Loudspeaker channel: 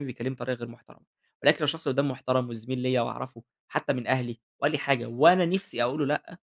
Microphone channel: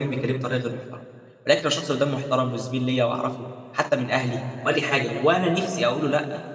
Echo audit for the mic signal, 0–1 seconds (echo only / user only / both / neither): echo only